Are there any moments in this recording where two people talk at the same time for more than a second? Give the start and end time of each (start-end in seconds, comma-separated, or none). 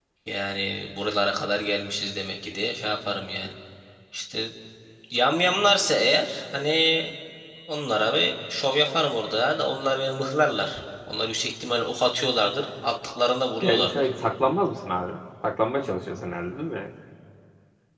none